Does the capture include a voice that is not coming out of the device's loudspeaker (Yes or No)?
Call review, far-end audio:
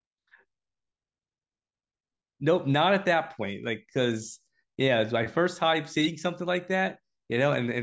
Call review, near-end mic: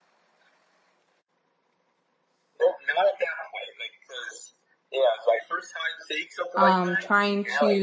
Yes